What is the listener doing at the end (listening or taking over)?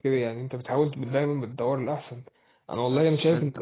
listening